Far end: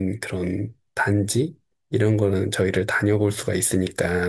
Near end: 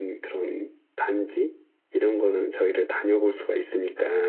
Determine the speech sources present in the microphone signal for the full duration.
echo only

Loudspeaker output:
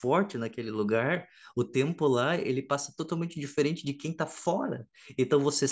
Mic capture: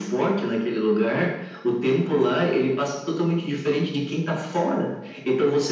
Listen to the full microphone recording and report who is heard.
echo only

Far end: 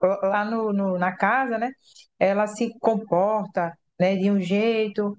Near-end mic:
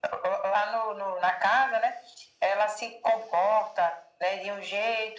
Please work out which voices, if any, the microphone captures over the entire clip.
echo only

